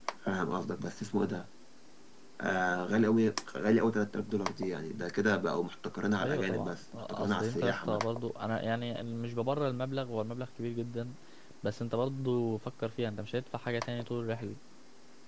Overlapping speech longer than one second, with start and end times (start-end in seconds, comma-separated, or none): 6.2-8.0